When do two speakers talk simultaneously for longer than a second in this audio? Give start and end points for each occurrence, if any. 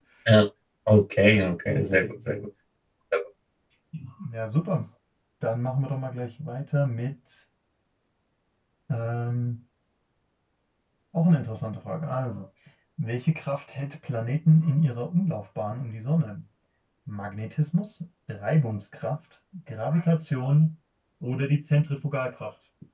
none

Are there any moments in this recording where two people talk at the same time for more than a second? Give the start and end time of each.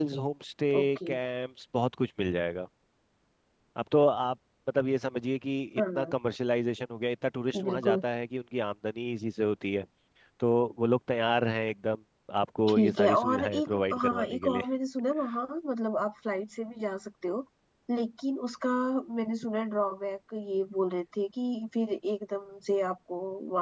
12.7-14.6

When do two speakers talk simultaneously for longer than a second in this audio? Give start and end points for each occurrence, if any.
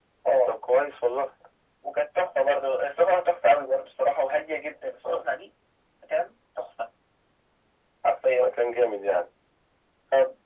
none

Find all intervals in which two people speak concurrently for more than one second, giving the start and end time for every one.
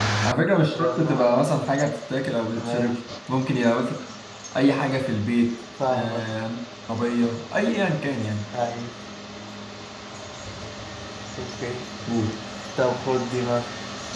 none

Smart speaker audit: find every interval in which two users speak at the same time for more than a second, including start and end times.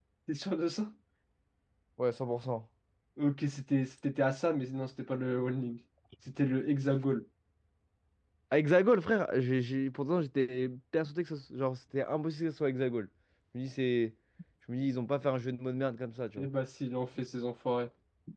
none

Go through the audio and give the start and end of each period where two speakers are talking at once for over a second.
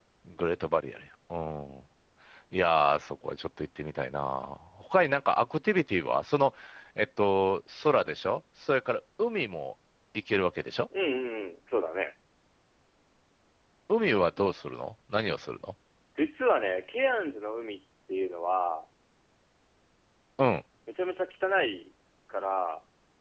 none

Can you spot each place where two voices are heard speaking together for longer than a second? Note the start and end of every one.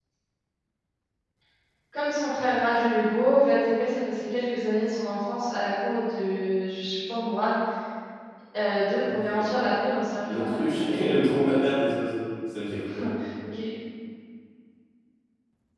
10.3-11.6

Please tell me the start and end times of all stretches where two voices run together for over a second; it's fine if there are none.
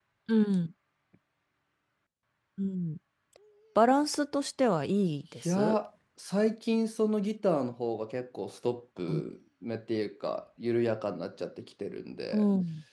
none

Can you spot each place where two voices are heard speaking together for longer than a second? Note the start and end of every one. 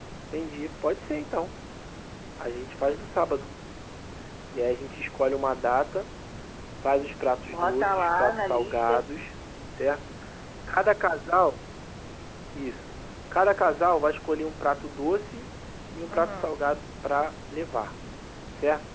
7.5-9.0

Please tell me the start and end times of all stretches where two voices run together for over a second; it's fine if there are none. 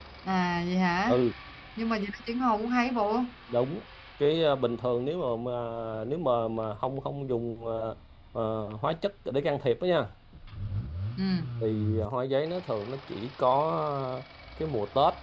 none

